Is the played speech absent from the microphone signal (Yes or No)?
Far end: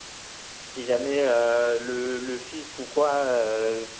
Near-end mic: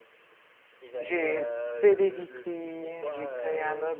No